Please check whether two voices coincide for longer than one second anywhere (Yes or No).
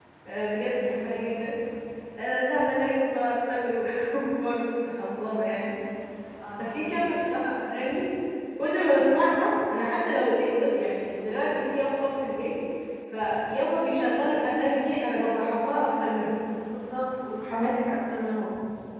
No